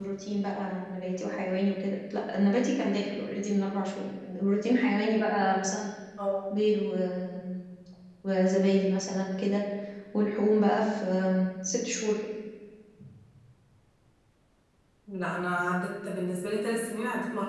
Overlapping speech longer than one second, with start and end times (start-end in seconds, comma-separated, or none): none